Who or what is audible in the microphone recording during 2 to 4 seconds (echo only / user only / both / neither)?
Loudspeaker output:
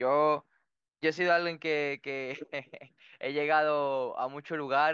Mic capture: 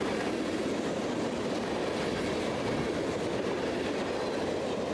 neither